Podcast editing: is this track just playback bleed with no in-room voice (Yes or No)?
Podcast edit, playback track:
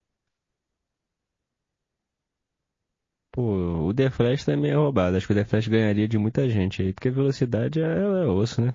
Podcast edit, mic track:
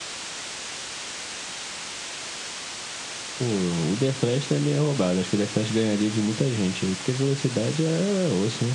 Yes